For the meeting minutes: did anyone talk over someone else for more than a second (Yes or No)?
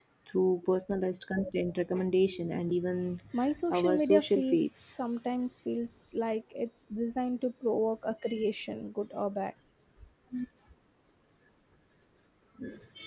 Yes